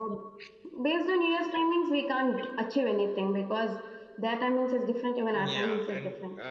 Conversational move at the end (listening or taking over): taking over